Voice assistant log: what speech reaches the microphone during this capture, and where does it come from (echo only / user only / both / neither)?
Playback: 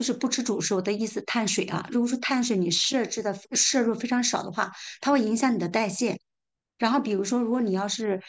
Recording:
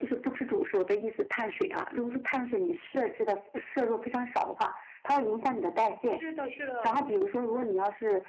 both